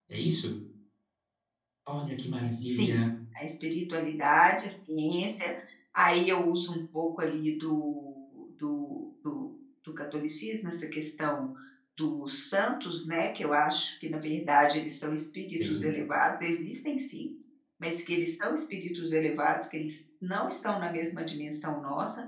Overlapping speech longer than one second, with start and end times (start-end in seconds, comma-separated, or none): none